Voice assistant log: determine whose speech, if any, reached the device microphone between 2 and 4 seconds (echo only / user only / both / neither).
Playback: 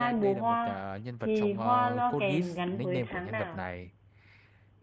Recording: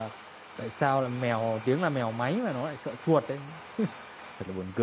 user only